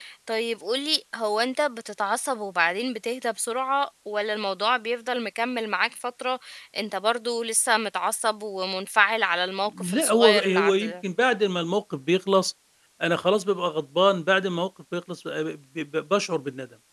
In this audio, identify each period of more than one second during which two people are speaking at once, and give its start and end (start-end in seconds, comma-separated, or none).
9.7-10.9